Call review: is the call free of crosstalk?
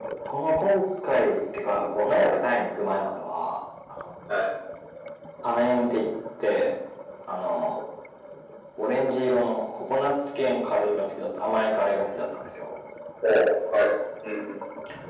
Yes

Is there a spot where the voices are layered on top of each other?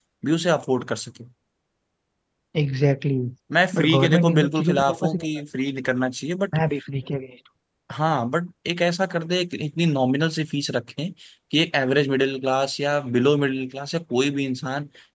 Yes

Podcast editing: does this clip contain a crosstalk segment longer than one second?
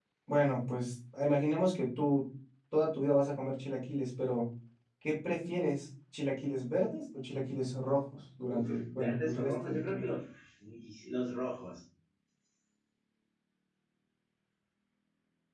Yes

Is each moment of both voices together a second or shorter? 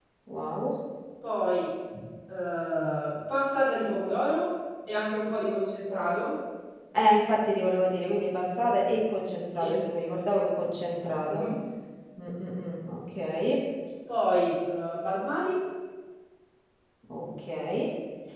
Yes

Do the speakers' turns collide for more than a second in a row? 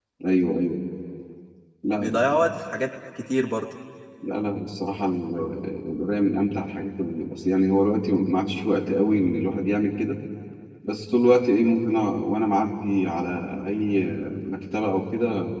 No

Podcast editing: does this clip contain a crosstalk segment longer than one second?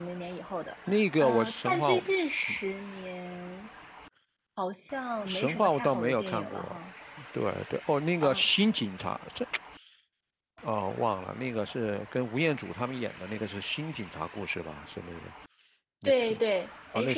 Yes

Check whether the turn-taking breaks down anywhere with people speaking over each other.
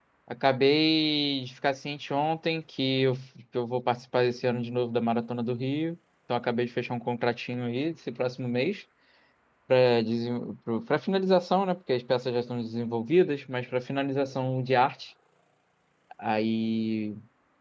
No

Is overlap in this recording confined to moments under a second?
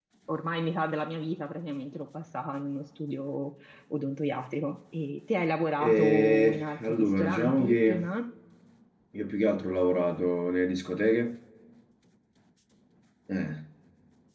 No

